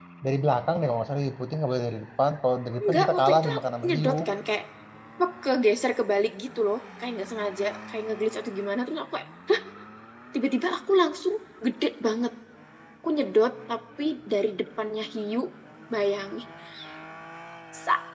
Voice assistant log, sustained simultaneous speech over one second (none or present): present